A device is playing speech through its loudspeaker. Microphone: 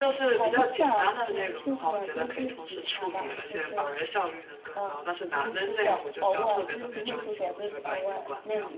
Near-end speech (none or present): present